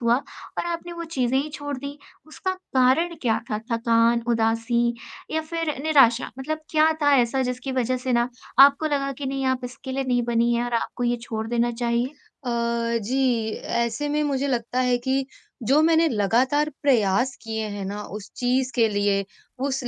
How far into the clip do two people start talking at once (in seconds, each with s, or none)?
none